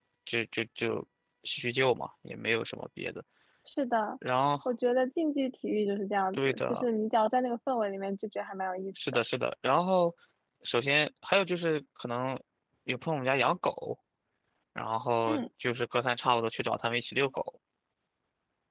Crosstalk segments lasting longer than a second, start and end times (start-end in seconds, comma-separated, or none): none